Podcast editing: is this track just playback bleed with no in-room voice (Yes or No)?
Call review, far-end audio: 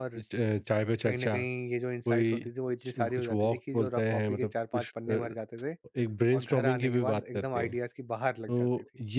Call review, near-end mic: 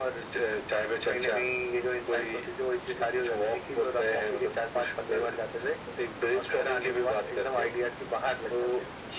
Yes